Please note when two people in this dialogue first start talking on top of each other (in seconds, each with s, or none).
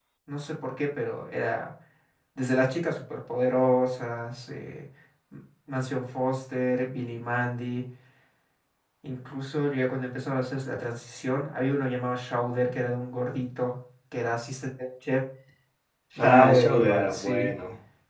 16.2 s